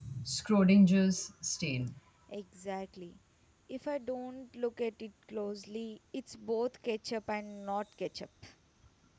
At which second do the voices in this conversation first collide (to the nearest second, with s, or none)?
none